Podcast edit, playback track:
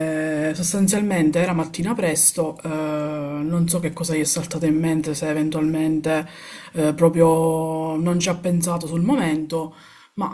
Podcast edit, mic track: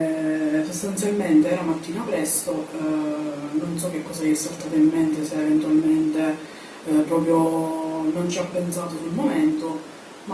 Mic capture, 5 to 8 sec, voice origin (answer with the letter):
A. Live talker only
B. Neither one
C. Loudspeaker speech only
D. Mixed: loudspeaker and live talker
C